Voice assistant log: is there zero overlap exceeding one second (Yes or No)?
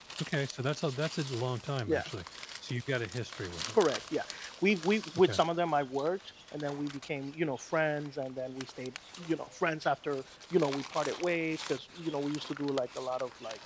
Yes